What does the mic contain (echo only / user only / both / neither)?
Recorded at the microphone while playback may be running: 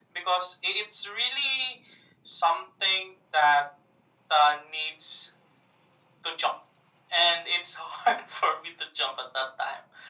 echo only